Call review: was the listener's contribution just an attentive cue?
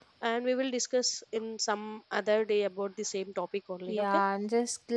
No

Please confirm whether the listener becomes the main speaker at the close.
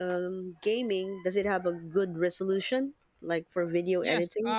Yes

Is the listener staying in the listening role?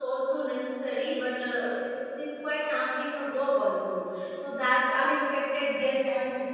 No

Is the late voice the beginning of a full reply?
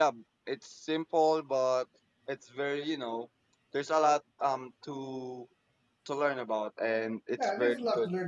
Yes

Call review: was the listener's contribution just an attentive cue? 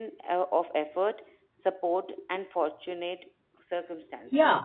No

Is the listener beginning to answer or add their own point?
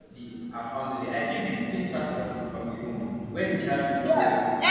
Yes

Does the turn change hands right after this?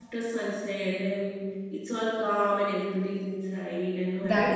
Yes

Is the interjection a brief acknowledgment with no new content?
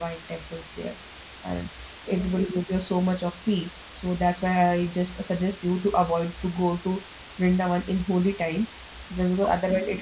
Yes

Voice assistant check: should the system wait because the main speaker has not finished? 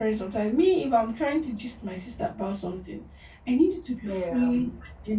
Yes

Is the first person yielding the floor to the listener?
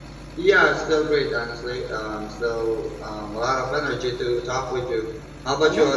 Yes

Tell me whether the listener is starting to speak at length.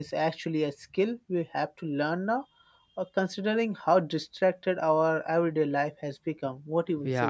Yes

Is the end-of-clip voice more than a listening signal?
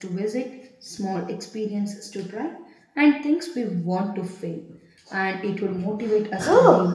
Yes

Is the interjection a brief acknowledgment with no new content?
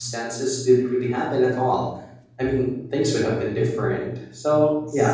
Yes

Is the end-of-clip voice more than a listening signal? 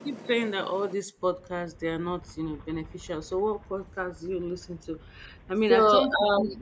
No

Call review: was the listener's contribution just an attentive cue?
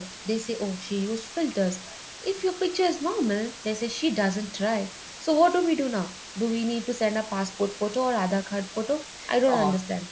No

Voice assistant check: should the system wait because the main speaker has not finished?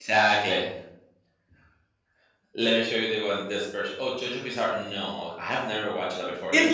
No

